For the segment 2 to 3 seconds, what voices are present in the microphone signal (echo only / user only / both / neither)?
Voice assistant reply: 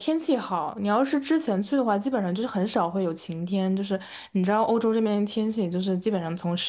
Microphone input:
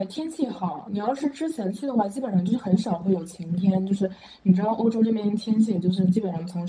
echo only